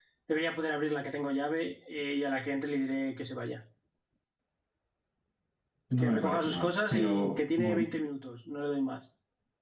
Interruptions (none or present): present